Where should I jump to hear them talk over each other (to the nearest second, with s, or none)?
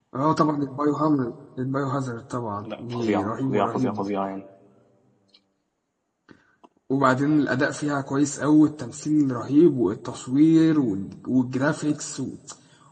3 s